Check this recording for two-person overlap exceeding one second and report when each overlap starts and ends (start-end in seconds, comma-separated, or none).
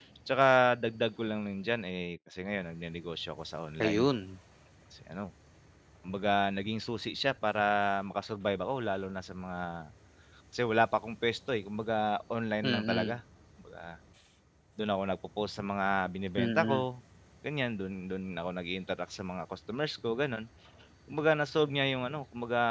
none